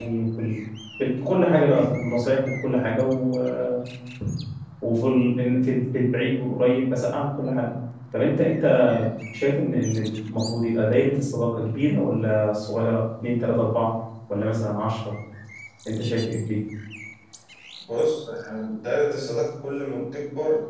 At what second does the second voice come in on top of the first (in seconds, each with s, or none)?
none